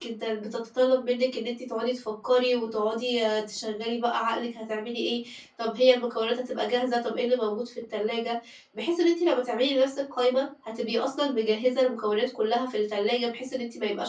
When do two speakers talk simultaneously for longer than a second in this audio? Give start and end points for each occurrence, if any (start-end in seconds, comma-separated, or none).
none